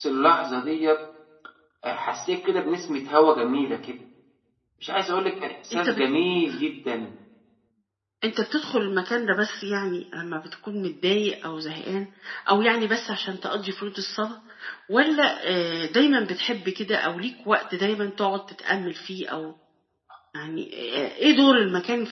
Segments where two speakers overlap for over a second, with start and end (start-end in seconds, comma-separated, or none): none